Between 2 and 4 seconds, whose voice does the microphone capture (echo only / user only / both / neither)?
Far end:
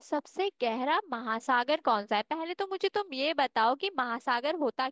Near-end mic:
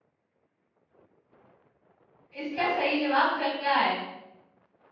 user only